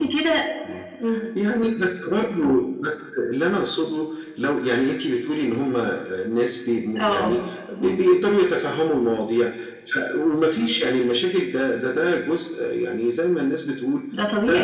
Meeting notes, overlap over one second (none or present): none